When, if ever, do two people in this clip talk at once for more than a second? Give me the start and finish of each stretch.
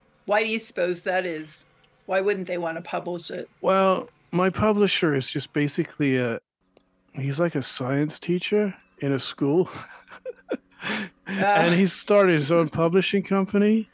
none

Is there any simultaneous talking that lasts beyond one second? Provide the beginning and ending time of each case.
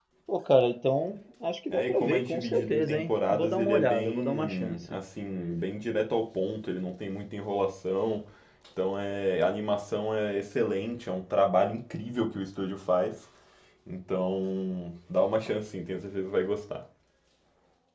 1.7-4.8

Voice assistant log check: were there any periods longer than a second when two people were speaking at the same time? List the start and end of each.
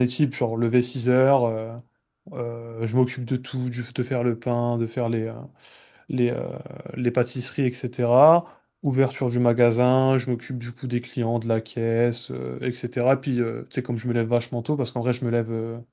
none

